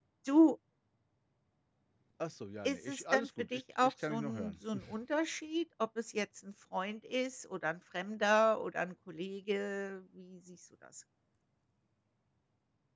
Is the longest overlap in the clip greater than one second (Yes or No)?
Yes